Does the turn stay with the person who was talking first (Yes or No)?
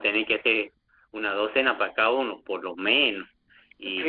No